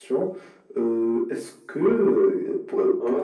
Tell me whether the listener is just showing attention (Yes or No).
Yes